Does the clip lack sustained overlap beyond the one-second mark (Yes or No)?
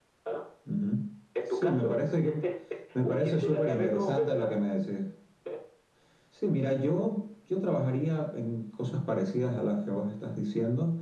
No